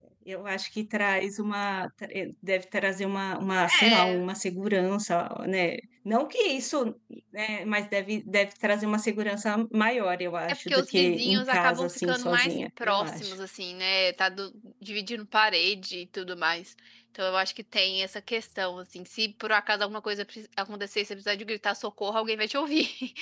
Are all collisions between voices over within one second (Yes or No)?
No